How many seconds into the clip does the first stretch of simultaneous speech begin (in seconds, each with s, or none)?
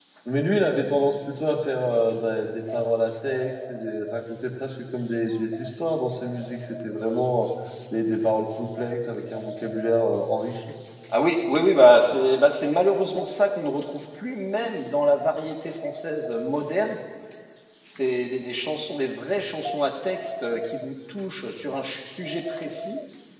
none